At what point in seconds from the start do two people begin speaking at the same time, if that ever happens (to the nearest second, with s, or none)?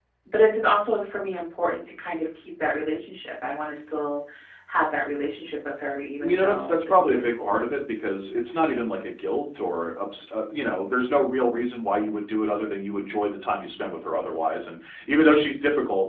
6 s